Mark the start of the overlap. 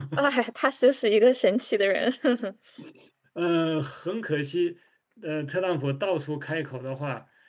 none

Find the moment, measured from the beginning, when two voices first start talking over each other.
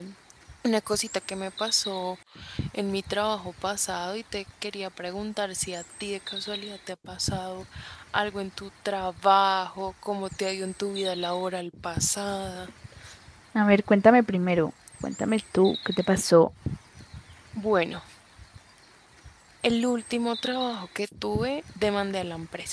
none

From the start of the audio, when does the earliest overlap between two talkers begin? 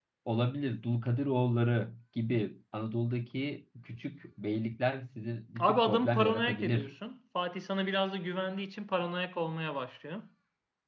5.6 s

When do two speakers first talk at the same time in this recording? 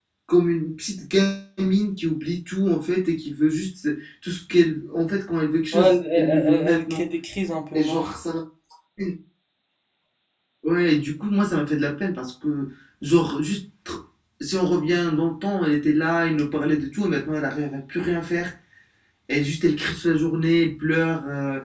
5.7 s

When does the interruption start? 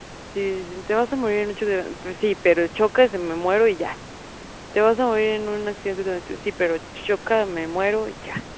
none

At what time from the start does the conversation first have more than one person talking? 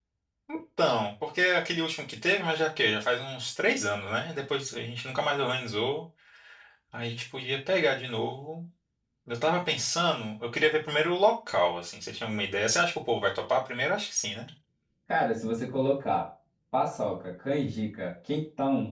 none

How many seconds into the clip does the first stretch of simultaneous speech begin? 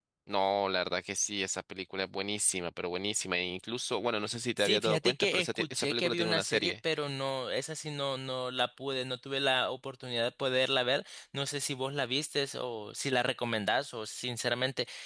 4.6 s

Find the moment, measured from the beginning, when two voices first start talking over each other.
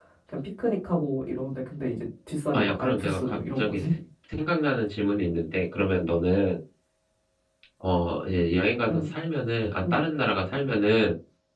2.5 s

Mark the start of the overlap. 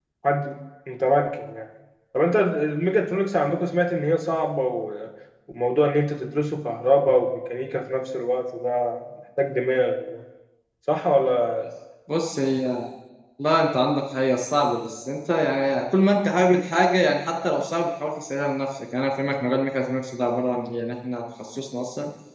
none

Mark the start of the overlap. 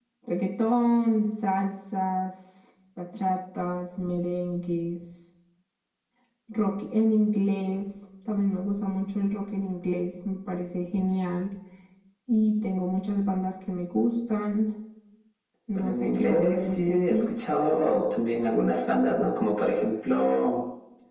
15.8 s

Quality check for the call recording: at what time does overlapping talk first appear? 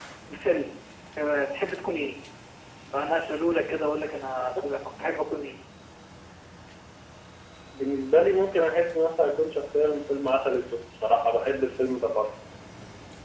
none

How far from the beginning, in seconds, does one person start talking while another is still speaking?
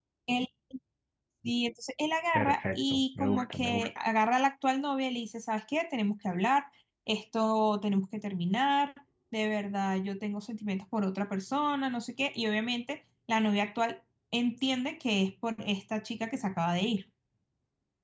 2.3 s

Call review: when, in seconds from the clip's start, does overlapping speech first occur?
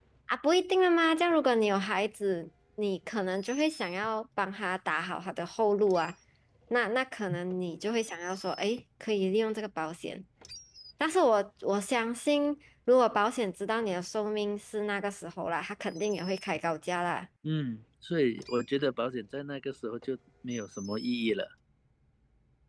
none

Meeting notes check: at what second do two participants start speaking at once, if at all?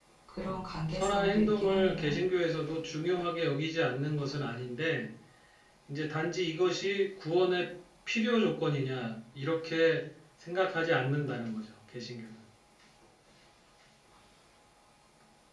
0.9 s

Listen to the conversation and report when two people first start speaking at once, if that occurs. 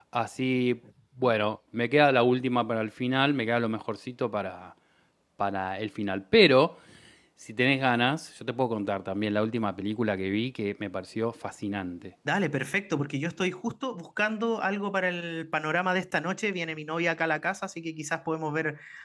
none

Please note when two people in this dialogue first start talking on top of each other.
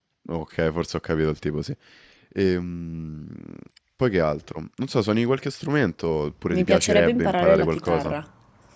6.5 s

